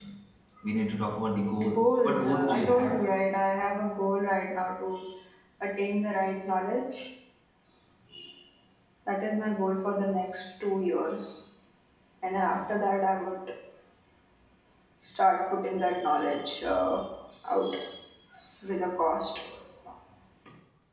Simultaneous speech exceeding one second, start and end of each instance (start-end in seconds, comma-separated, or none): 1.7-3.1